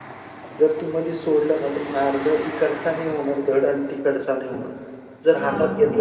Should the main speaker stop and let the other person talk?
No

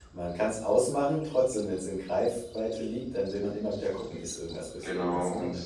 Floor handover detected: Yes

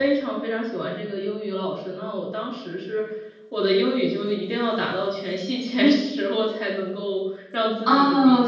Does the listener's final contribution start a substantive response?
Yes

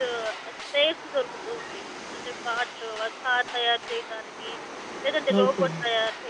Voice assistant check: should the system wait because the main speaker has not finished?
Yes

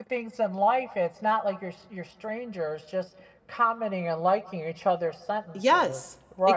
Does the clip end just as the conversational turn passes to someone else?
Yes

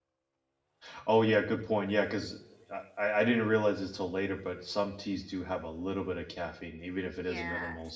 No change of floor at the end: No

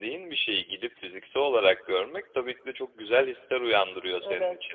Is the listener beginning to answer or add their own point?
No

